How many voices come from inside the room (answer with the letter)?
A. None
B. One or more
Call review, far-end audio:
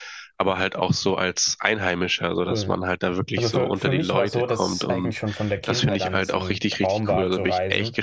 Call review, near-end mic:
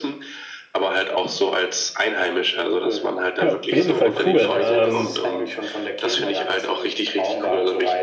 B